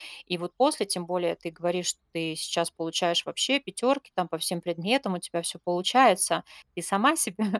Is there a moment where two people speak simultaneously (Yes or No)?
No